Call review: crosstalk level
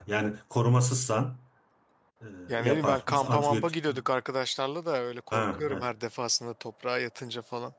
present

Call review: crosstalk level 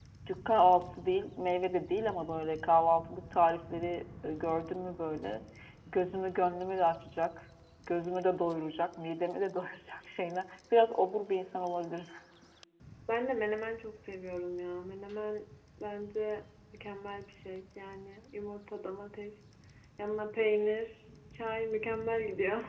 none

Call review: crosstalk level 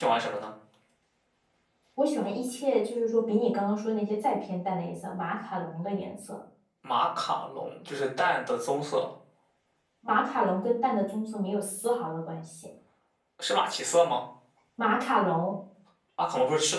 none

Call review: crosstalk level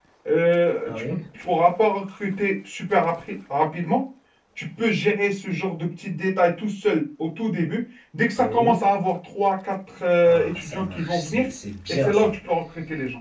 present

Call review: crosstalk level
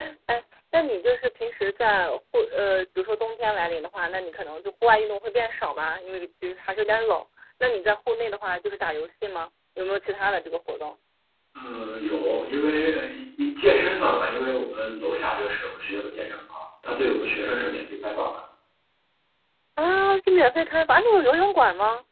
none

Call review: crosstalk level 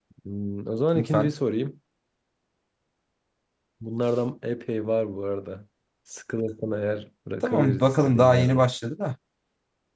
present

